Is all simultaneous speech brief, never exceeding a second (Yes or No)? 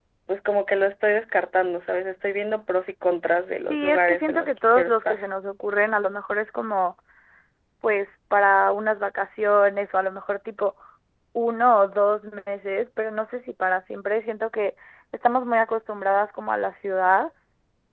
No